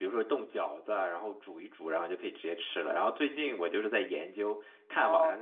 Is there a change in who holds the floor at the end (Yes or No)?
Yes